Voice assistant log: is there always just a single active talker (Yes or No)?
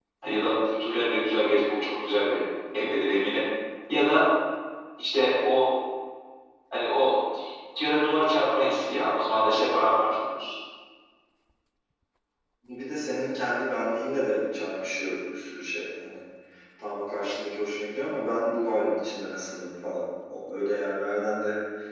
Yes